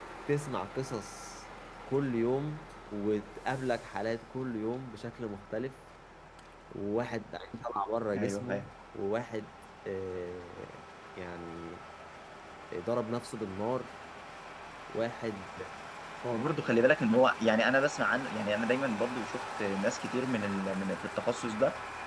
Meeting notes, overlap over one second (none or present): none